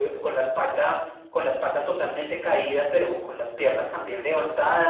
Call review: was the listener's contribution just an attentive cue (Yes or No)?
Yes